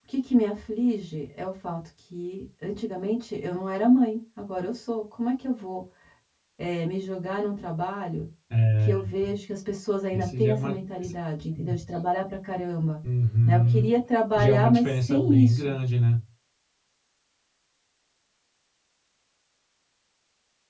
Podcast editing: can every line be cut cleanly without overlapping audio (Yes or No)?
No